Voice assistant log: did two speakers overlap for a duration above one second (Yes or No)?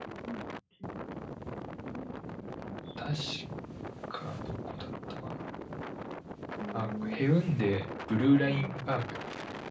No